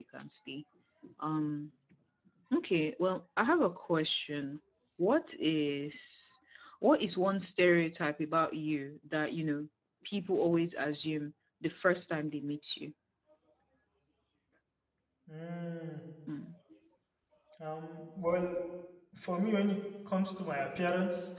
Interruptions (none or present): none